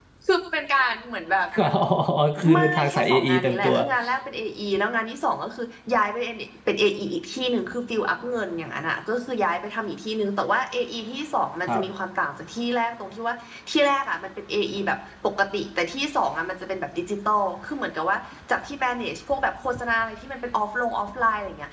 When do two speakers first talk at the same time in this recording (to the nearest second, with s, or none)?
3 s